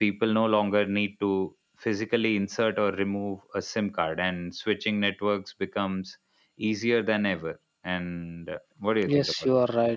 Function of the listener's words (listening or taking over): taking over